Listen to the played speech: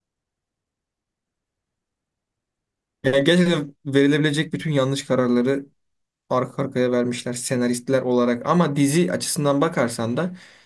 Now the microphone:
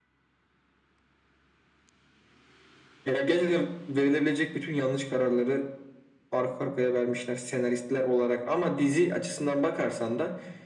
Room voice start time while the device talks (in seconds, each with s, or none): none